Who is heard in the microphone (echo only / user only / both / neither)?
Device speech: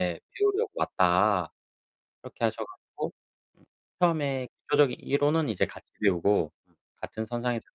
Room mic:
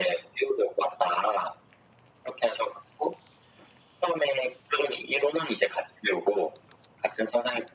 echo only